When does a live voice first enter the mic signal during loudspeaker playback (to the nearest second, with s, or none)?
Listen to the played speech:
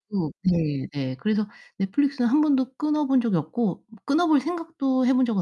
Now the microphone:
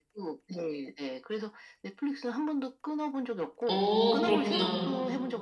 4 s